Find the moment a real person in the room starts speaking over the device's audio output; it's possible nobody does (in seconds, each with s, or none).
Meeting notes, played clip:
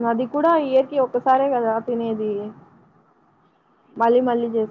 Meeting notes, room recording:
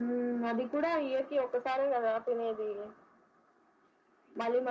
none